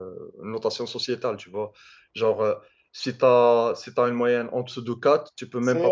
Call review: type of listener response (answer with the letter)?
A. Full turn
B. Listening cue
A